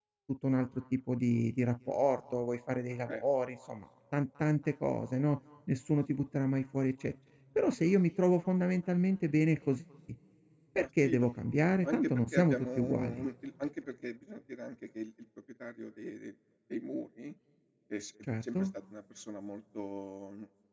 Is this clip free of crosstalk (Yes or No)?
No